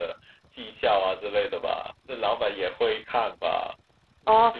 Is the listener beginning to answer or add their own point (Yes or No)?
Yes